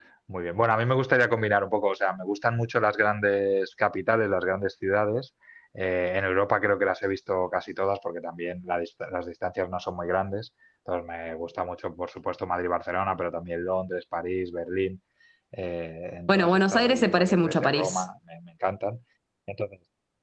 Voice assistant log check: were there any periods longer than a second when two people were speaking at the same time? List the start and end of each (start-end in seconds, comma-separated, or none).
16.3-18.0